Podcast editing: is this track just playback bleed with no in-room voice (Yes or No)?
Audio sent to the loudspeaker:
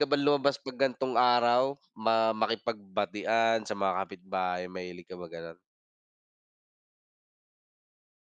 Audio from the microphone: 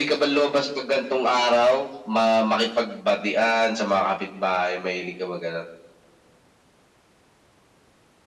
Yes